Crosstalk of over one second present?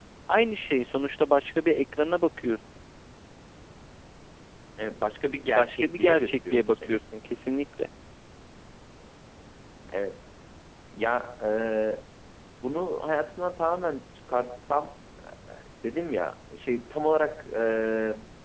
Yes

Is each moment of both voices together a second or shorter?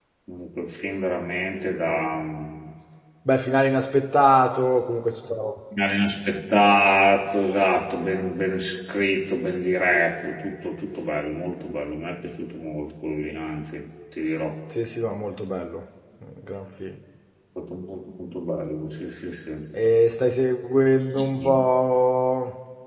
Yes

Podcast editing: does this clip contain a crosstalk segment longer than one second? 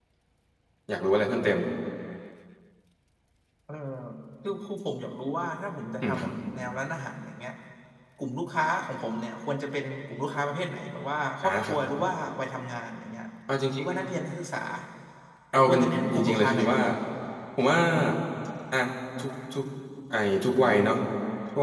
Yes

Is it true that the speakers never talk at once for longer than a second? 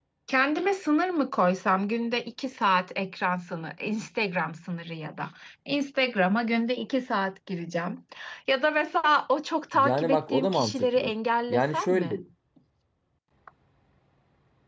No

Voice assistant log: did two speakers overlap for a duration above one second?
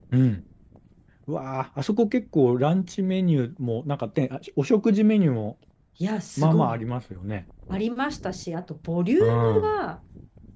No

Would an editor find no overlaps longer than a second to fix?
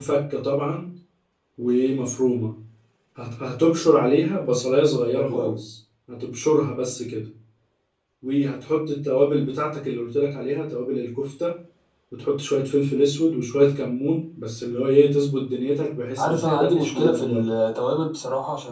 No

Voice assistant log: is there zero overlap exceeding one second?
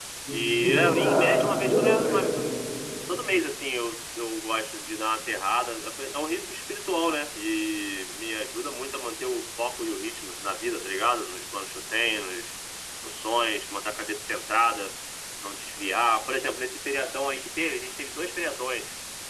No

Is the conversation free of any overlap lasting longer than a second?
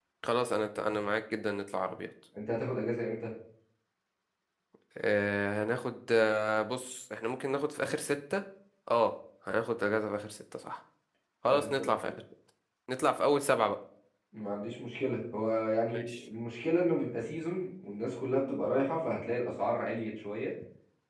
Yes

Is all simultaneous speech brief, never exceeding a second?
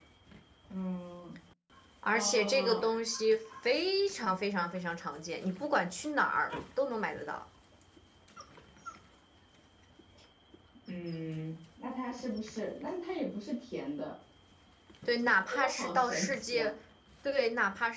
No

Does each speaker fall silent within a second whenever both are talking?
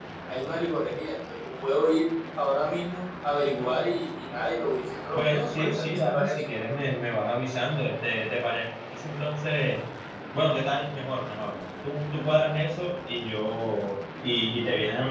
No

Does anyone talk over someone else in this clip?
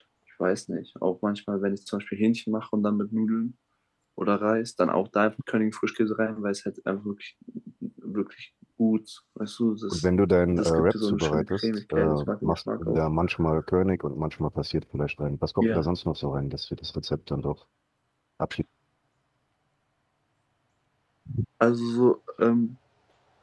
Yes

